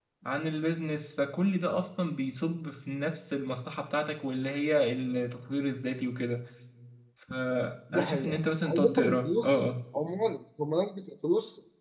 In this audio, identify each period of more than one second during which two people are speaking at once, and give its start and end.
7.9-9.6

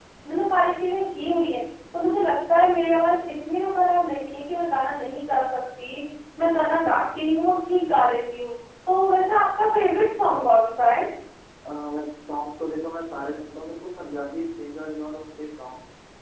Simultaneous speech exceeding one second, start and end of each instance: none

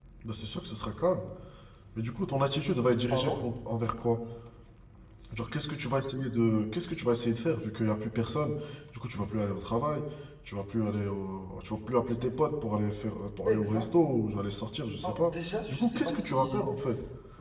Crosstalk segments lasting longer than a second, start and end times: 15.0-16.7

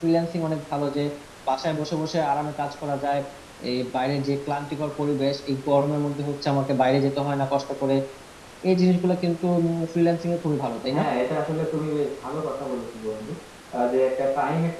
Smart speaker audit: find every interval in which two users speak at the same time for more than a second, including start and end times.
none

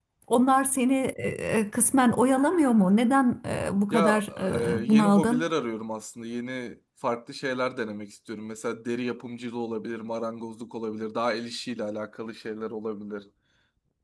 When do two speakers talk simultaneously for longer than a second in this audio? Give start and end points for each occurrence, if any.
3.9-5.4

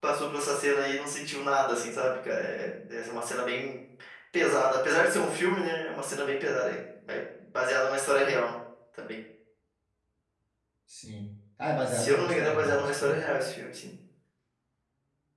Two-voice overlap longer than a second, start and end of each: 11.9-13.2

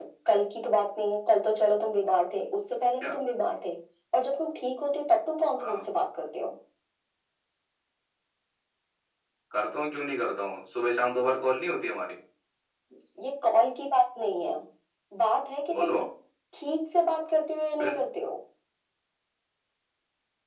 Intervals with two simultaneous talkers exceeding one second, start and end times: none

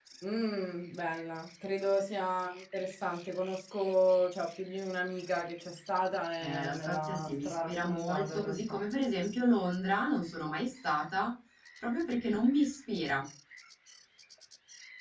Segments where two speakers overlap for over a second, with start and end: 6.4-8.8

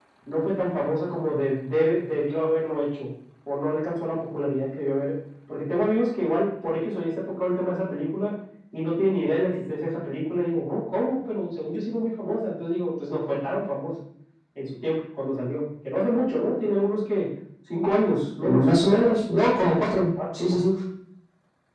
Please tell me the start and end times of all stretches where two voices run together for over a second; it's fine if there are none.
none

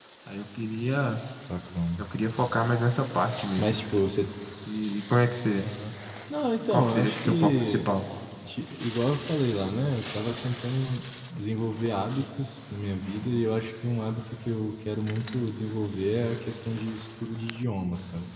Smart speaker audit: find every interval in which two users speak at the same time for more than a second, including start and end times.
6.6-7.9

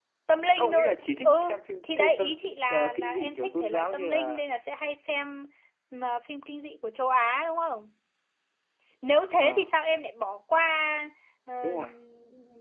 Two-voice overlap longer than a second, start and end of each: 0.5-2.3, 2.7-4.4

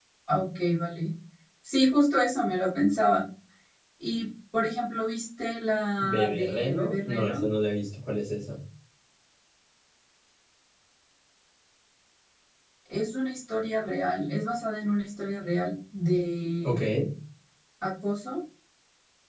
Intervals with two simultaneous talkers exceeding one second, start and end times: 6.0-7.5

